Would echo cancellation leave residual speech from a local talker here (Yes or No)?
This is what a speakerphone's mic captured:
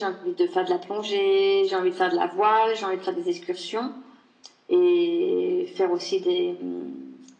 No